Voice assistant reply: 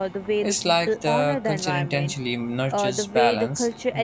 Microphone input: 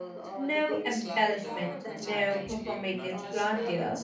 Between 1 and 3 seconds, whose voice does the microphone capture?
both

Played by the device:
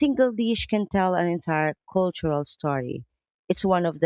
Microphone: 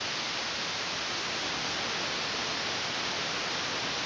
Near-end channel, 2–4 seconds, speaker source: neither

